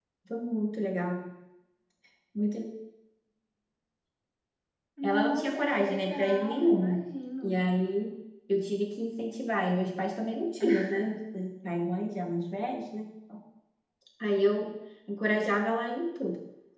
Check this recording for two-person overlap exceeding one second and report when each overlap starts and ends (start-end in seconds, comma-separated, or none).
5.0-7.0